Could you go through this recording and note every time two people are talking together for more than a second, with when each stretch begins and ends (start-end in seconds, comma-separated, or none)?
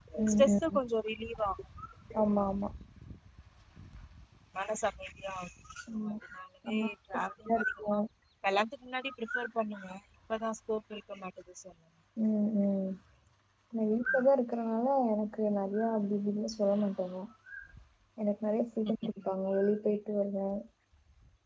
6.7-7.9